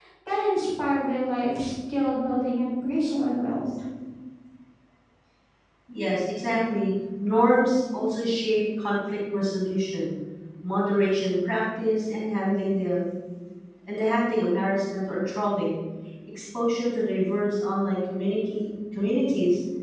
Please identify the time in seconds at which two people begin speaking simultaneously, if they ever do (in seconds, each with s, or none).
none